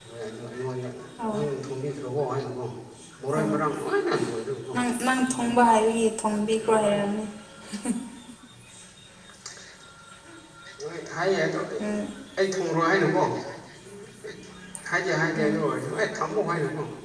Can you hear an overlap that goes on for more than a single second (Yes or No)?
No